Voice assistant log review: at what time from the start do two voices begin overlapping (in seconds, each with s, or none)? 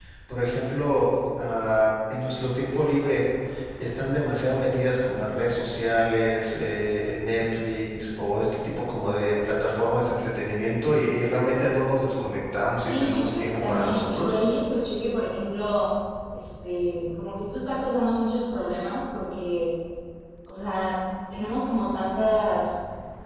12.8 s